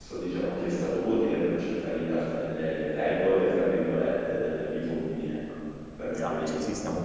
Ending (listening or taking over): taking over